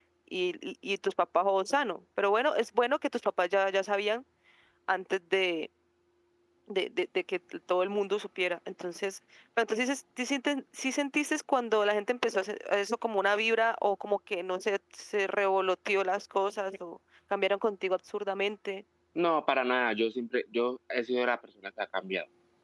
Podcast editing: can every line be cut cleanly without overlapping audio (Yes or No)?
Yes